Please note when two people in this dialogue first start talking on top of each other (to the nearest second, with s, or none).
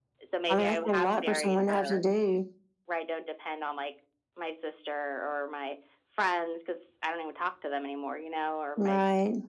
1 s